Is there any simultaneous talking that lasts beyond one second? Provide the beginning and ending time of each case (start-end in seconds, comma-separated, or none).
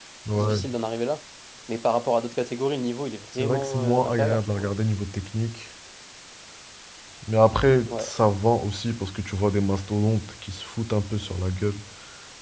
3.4-4.7